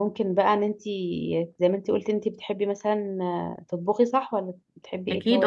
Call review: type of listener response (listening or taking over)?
taking over